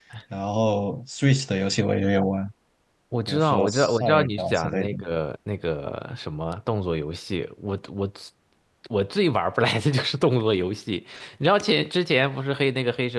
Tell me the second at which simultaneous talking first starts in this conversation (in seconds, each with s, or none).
3.3 s